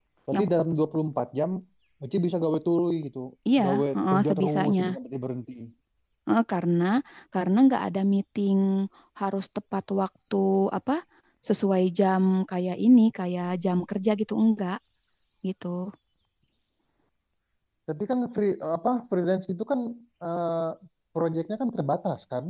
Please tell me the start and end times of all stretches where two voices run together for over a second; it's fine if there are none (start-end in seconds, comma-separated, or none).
3.6-4.8